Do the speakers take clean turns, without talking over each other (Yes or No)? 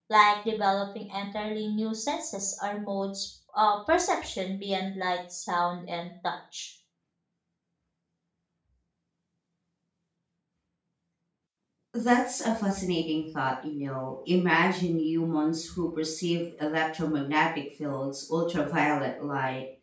Yes